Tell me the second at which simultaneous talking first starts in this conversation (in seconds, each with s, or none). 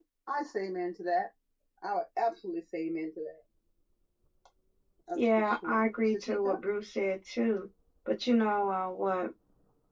5.2 s